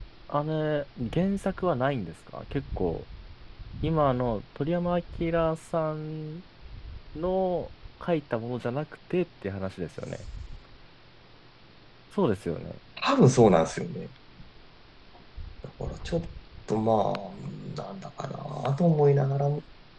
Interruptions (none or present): none